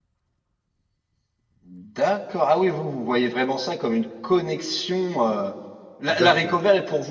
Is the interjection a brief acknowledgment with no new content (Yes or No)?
Yes